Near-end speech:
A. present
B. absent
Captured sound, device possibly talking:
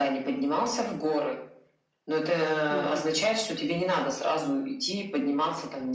A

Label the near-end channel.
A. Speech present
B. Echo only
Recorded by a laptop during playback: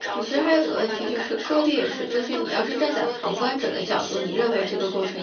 A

